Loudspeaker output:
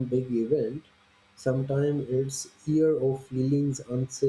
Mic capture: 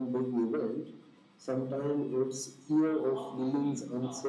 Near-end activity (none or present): present